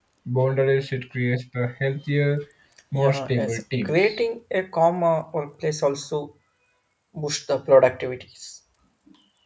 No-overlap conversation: No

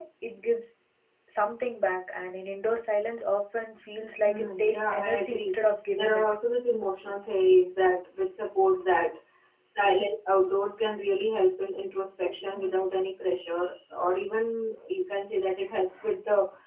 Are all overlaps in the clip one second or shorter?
No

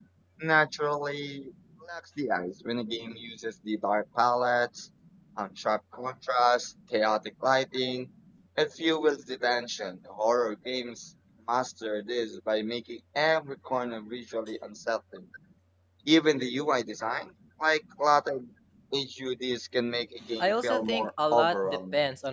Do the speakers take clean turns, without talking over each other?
No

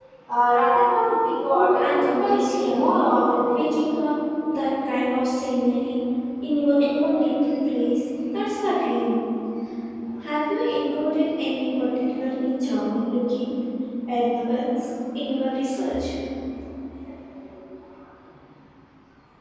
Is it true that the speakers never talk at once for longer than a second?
No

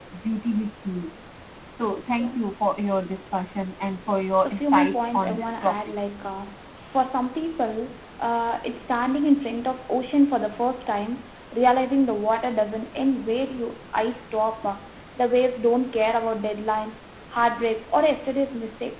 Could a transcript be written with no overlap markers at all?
No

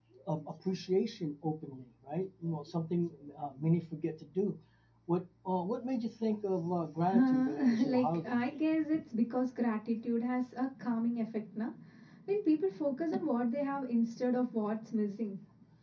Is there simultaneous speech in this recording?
Yes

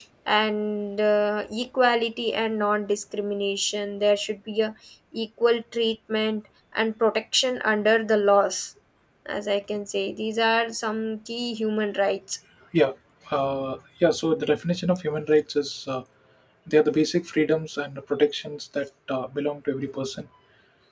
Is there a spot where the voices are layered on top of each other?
No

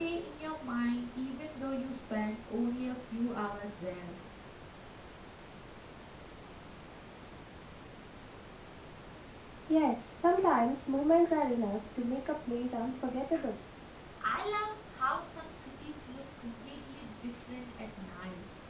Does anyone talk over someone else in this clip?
No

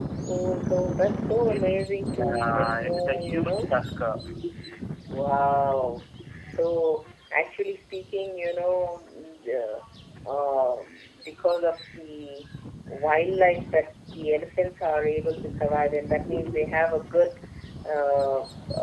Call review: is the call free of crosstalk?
No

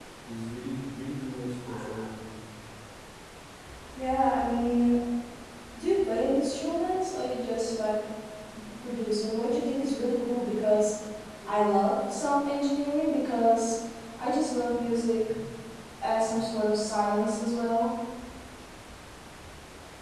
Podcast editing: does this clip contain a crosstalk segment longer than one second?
No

